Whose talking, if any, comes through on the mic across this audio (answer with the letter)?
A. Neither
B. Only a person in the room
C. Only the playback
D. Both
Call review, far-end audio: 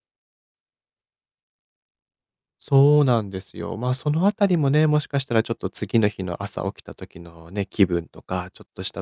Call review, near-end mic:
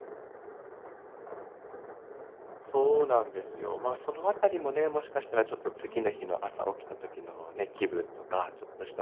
D